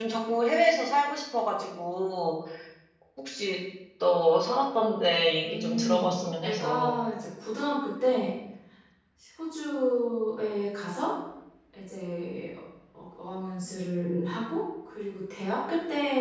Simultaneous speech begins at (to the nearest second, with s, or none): 5 s